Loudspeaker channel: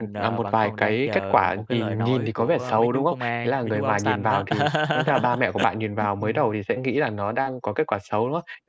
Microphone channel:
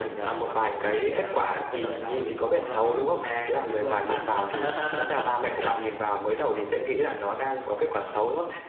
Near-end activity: none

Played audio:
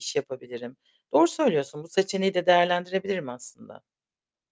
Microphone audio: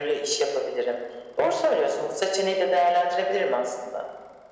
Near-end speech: none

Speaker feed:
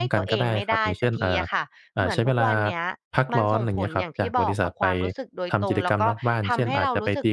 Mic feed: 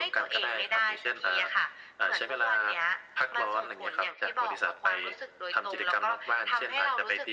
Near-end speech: none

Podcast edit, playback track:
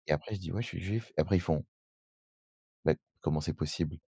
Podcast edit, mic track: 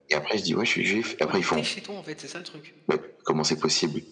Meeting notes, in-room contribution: present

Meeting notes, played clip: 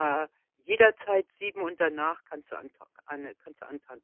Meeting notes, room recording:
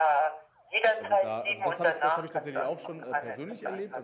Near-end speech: present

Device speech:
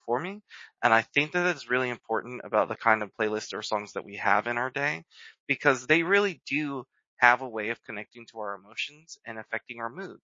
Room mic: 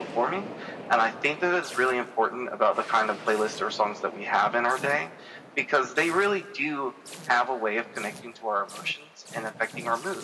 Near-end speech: none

